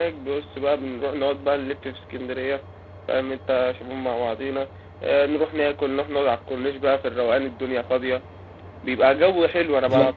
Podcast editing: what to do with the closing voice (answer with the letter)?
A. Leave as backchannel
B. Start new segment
A